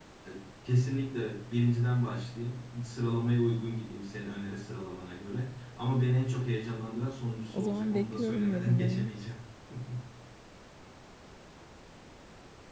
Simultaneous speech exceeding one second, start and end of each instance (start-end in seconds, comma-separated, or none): 7.5-9.1